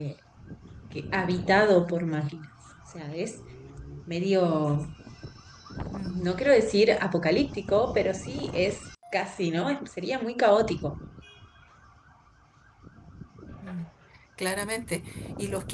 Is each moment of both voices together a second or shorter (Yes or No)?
Yes